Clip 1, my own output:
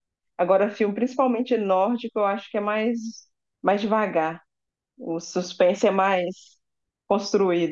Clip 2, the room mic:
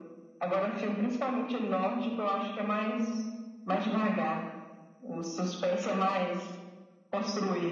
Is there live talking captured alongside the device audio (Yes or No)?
No